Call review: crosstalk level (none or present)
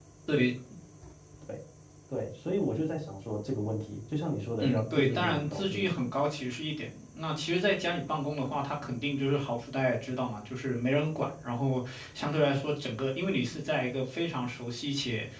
present